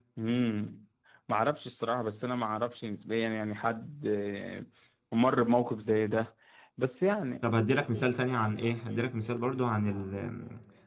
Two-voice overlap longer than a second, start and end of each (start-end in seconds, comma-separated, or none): none